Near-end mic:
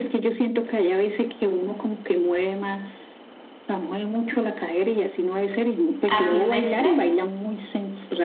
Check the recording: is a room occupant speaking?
Yes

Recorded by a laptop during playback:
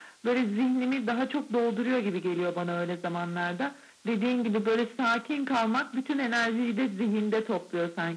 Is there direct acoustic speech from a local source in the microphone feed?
No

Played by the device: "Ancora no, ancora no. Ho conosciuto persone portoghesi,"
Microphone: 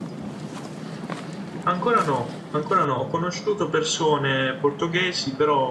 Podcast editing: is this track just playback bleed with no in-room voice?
Yes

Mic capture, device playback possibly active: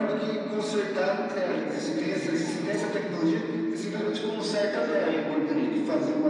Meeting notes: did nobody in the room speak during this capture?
Yes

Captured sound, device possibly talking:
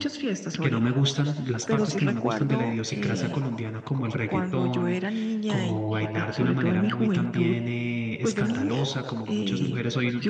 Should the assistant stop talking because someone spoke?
Yes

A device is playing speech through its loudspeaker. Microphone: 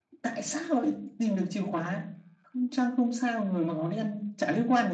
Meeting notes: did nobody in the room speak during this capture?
Yes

